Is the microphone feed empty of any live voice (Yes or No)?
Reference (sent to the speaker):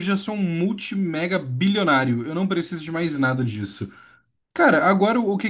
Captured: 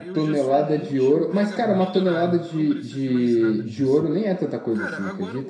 No